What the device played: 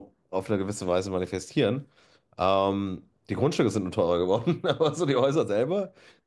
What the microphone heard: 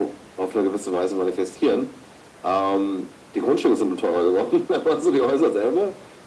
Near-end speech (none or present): none